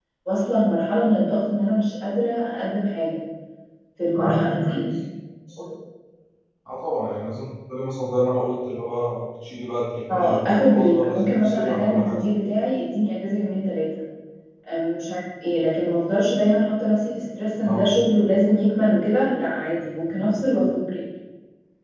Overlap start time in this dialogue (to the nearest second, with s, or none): 10 s